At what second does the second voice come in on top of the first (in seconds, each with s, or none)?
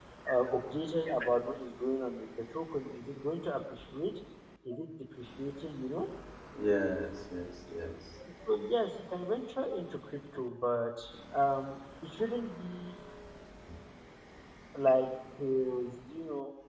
none